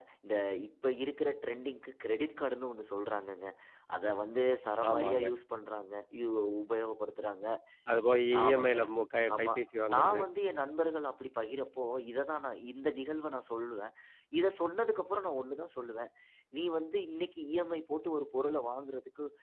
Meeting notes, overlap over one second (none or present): none